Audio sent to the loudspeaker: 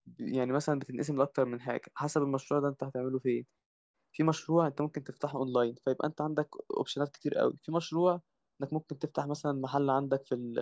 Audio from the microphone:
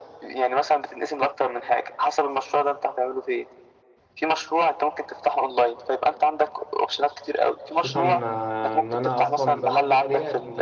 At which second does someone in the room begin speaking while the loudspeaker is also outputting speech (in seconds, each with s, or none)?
7.7 s